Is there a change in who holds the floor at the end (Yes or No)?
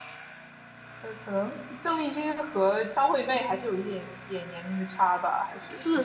Yes